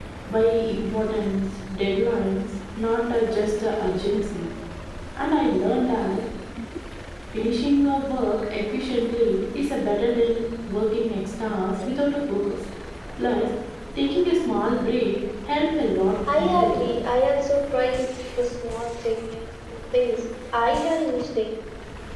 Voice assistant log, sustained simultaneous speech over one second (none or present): none